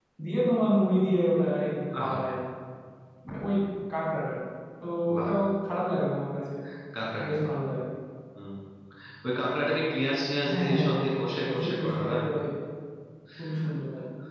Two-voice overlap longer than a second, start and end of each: 10.5-12.2

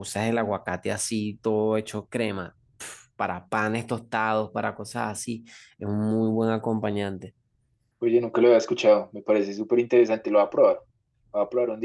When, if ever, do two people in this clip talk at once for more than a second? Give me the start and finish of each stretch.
none

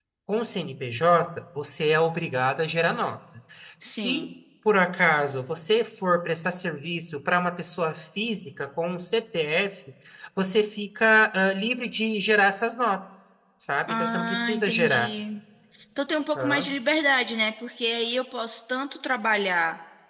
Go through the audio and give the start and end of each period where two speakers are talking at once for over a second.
13.9-15.1

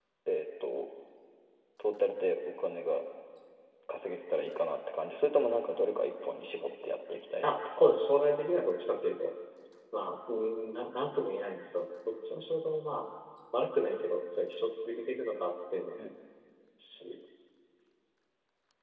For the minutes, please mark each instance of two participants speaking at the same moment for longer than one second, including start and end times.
none

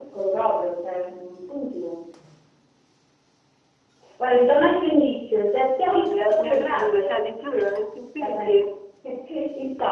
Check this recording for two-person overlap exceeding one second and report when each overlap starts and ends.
5.9-7.1

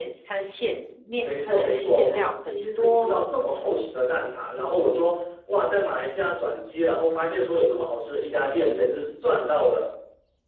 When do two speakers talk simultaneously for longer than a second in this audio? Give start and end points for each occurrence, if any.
1.2-3.3

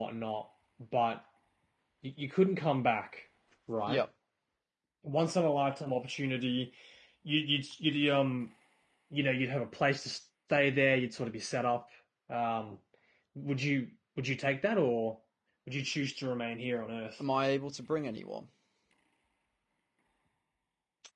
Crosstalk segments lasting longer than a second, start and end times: none

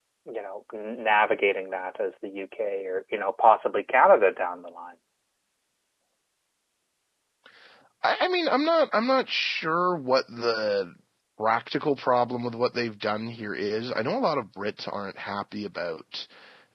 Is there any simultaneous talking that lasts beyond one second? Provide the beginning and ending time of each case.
none

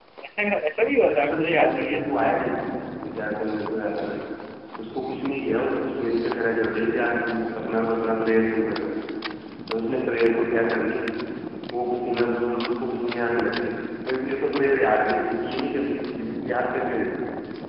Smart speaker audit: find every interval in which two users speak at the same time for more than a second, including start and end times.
1.0-2.3

